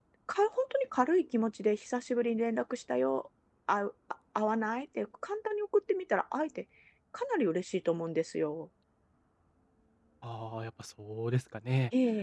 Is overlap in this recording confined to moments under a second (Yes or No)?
Yes